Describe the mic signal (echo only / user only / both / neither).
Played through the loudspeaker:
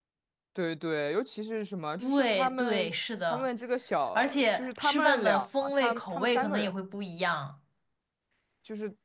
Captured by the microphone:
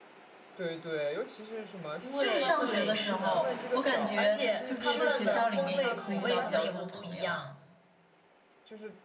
both